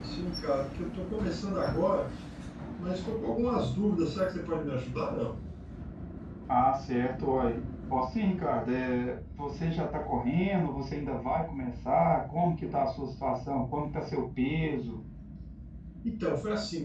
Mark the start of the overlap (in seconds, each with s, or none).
none